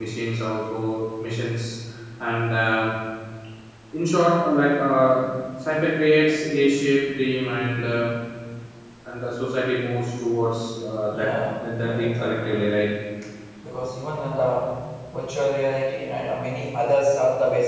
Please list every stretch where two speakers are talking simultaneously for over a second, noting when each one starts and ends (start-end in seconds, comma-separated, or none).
11.1-12.6